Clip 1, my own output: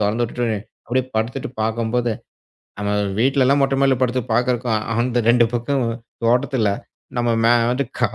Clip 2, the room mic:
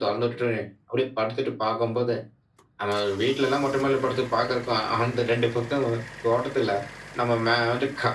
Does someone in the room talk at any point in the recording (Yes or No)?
No